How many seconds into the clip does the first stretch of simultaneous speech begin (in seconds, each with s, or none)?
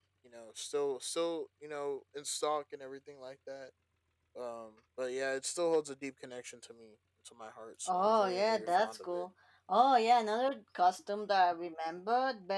7.9 s